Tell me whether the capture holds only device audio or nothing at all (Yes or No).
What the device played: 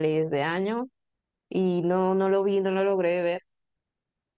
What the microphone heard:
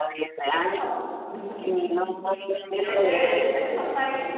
No